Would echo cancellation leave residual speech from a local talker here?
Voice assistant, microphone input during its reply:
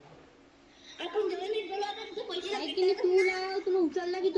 Yes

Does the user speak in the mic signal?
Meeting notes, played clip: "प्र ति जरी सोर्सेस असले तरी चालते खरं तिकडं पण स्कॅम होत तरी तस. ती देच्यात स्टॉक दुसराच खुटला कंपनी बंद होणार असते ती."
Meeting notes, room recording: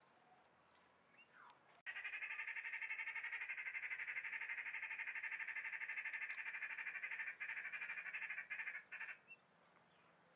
No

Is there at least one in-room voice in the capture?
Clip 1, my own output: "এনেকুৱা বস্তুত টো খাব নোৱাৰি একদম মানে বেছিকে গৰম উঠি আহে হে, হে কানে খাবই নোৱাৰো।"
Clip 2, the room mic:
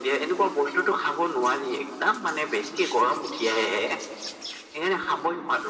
No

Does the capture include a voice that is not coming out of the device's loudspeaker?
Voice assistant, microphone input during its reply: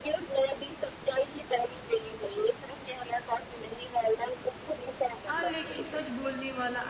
Yes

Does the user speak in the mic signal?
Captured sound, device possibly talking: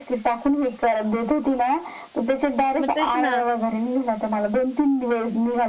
Yes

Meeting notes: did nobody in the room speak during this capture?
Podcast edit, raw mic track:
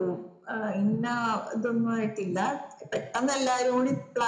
Yes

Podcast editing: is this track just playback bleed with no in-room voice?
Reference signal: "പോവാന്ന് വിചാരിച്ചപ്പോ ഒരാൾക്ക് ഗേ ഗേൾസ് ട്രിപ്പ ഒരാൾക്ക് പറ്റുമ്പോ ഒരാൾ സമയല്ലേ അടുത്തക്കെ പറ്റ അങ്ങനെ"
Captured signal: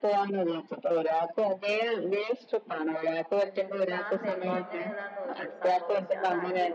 No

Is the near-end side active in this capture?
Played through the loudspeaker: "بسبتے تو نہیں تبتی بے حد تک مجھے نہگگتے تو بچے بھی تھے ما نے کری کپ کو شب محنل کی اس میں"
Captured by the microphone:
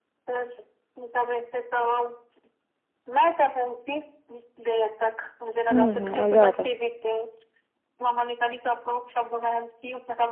Yes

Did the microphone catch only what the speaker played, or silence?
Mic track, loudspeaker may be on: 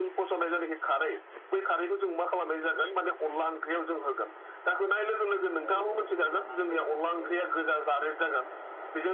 No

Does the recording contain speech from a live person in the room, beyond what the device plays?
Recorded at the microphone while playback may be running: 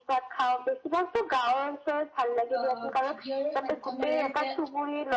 Yes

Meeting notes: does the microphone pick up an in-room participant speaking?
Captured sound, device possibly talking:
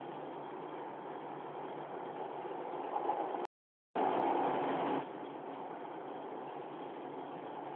No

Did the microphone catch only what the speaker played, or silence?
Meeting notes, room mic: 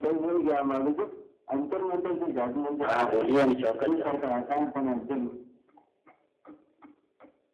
No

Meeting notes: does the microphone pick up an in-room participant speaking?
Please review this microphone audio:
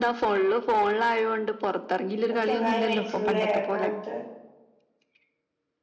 Yes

